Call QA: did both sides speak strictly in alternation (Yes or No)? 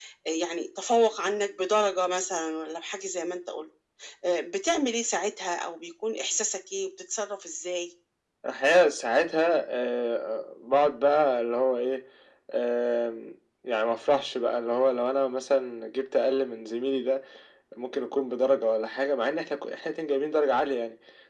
Yes